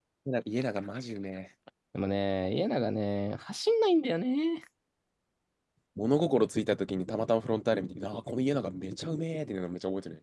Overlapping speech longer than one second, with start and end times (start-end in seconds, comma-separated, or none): none